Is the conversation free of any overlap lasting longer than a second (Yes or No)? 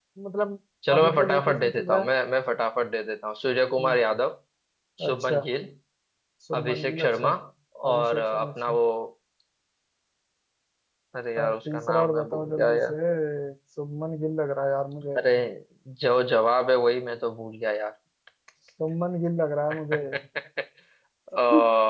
No